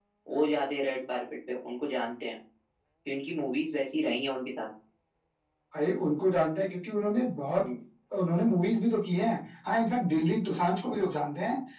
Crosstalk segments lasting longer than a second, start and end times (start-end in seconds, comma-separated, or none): none